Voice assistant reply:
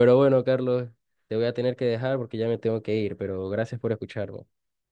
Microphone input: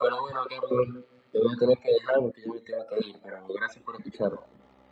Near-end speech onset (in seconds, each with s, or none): none